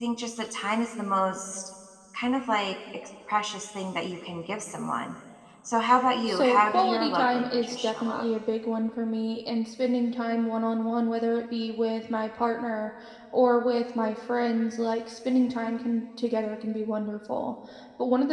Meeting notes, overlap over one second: present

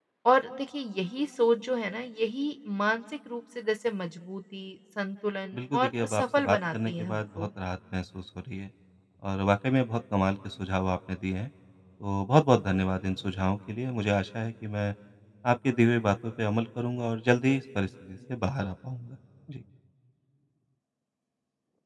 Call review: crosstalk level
present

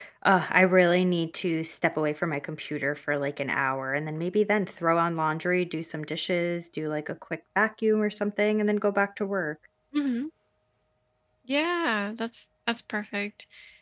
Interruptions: none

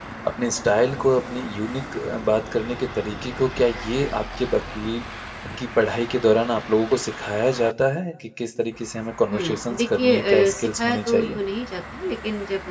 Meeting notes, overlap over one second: present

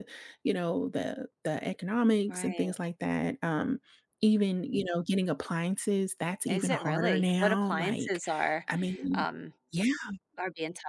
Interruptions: present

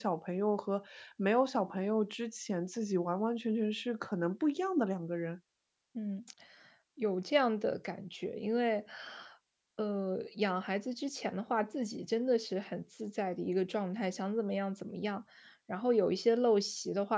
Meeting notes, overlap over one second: none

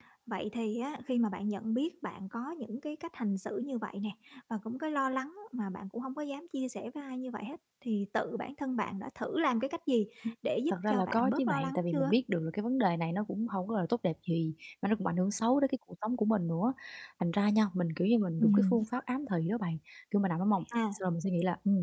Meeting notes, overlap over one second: present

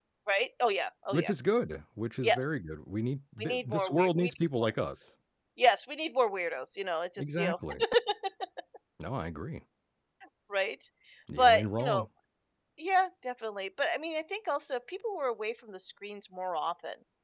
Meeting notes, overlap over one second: present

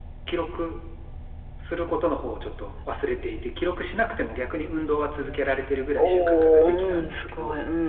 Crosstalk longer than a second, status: present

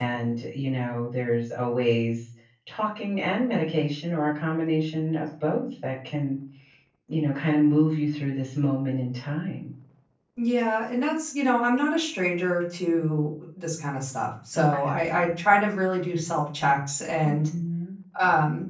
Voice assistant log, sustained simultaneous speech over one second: none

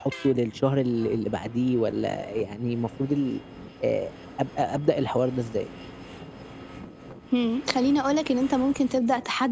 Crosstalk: none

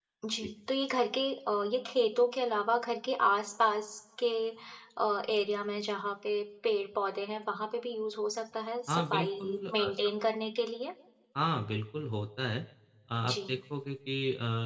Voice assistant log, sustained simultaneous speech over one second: present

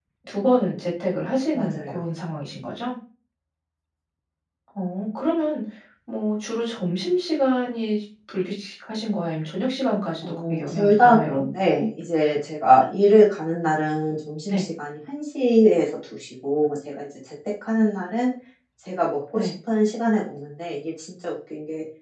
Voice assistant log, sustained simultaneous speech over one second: present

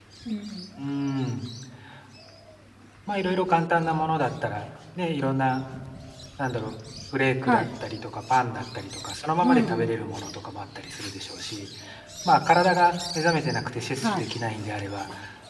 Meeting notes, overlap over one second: none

